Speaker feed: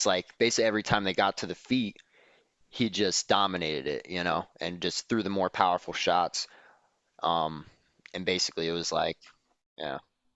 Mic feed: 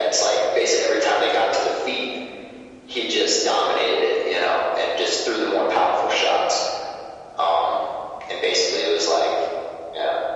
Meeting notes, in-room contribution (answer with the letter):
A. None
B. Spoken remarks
A